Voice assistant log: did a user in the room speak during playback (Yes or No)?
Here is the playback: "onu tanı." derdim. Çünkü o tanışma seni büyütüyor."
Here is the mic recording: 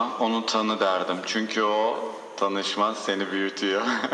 No